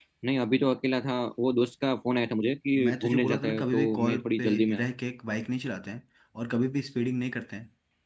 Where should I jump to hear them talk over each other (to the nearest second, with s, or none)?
3 s